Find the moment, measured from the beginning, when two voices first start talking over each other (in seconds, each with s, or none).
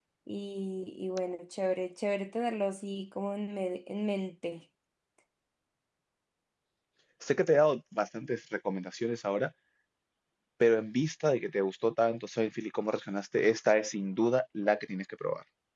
none